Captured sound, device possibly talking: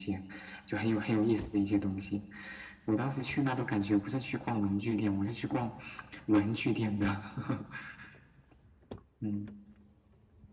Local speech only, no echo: none

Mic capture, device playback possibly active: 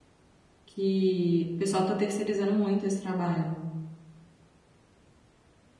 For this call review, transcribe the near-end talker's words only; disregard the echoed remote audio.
que o pessoal está terceirizando muito esse trabalho.

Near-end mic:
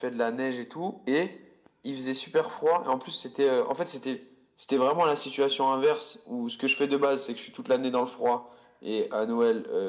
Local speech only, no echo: none

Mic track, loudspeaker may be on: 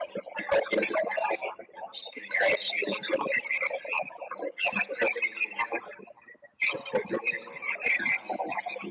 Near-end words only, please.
none

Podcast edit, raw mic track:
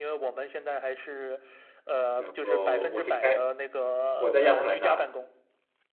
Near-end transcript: 然后我是开我在亚特兰大，

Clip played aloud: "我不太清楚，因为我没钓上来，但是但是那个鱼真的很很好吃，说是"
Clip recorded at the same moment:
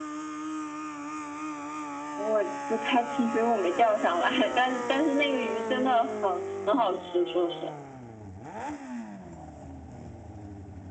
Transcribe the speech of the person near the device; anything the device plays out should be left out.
none

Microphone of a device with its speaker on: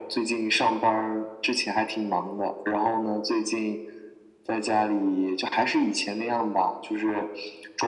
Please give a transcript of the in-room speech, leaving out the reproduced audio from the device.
none

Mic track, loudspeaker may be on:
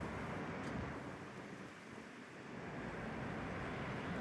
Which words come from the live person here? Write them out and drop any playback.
none

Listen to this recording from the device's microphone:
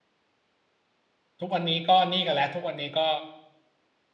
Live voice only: ทุกวันนี้ก็นี่กันแล้วทุกวันนี้ก็

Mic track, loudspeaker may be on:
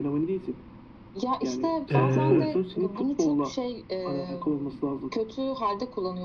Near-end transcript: e,

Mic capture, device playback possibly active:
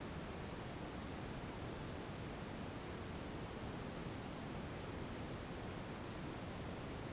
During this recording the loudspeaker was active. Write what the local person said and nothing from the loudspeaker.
none

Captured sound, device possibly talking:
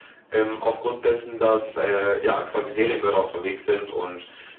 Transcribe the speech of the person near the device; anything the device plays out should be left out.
none

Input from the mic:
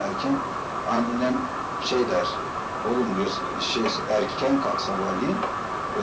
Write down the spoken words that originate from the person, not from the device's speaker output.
none

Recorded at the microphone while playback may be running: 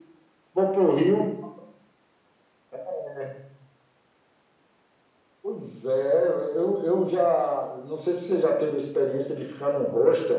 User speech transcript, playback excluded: none

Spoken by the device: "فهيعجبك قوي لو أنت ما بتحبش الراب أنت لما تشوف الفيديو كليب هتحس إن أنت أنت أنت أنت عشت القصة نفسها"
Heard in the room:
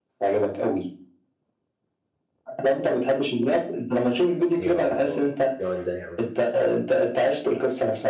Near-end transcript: يا الله! الجمال ده يا عم،

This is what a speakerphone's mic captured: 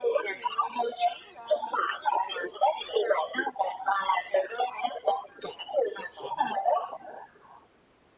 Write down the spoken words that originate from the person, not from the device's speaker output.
none

